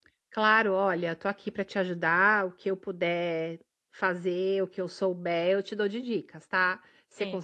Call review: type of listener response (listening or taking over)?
listening